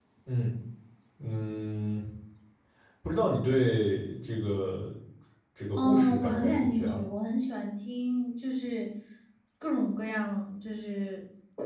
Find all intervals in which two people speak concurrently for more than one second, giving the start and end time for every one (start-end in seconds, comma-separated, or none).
5.8-7.0